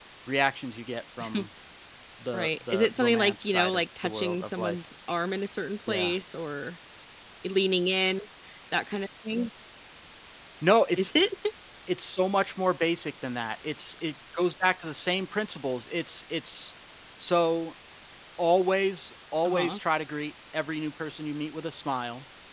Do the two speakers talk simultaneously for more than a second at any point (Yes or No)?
Yes